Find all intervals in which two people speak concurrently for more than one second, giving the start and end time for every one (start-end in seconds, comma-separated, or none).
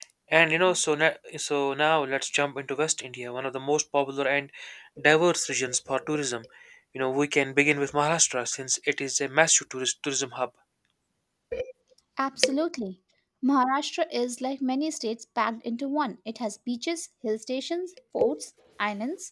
none